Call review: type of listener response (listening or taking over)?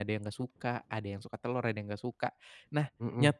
listening